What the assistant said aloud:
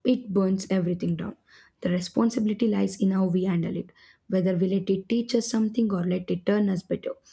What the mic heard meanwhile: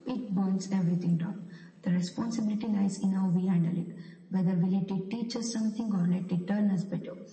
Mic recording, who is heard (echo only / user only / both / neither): echo only